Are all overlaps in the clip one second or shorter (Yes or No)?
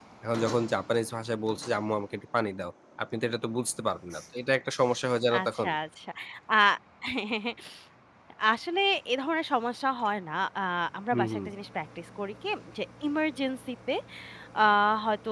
Yes